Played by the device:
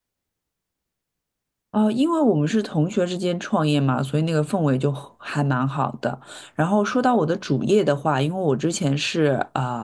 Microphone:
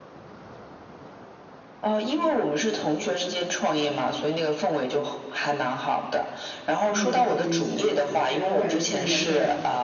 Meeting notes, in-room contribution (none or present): present